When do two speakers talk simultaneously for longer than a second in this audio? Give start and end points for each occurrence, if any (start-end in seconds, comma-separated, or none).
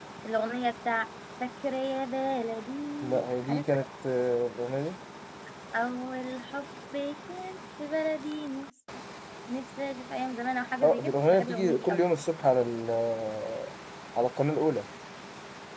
10.8-12.0